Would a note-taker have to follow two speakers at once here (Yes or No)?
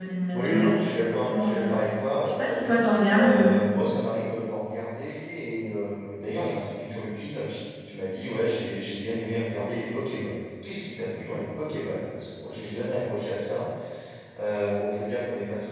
Yes